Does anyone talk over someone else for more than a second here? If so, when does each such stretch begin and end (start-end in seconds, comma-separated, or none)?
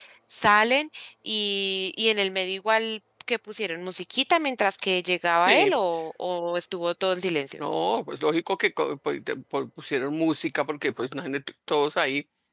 none